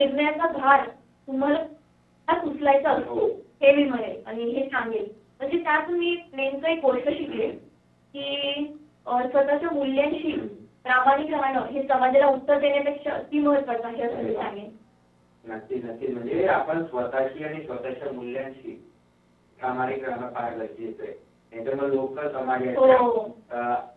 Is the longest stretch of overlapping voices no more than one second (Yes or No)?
Yes